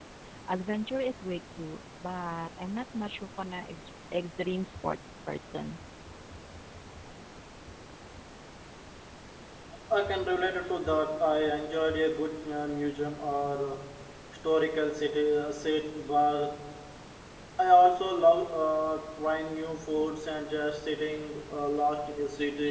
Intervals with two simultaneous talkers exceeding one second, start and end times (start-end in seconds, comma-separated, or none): none